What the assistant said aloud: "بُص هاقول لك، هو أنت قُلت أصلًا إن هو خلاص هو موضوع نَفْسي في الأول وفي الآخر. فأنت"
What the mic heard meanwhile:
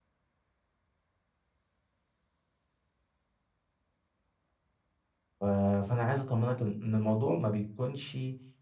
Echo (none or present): none